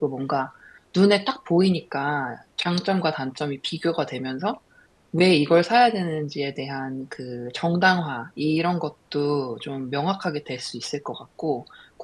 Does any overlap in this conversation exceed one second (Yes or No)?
No